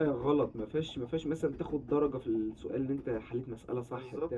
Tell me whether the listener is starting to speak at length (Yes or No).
Yes